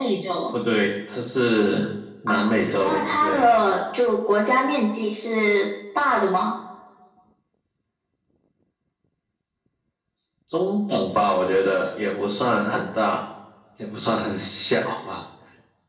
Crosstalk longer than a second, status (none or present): present